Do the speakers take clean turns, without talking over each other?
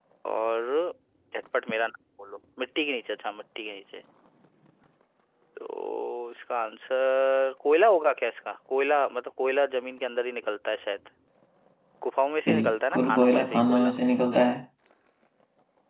No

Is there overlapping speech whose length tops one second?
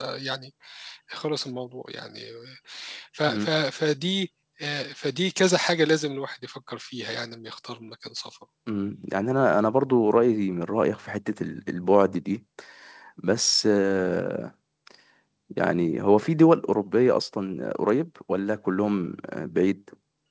No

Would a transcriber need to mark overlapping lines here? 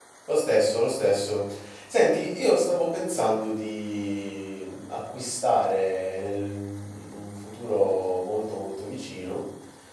No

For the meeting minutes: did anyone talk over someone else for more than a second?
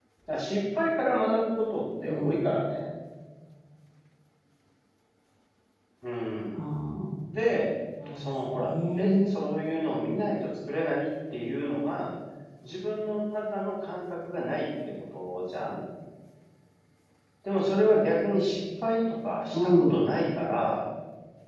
Yes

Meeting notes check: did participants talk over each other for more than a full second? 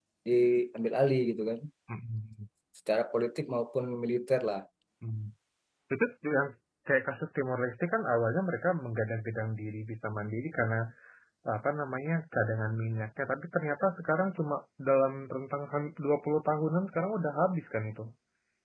No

